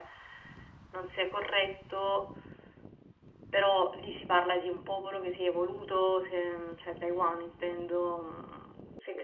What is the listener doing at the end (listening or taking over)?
listening